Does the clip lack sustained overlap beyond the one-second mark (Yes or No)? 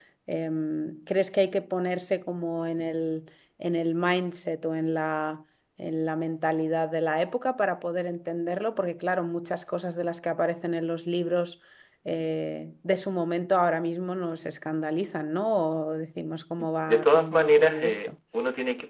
No